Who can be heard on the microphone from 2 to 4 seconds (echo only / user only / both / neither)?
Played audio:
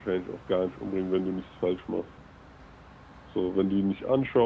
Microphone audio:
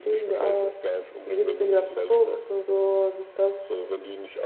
both